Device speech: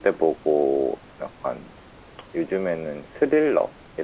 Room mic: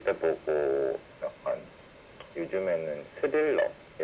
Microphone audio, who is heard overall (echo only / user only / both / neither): echo only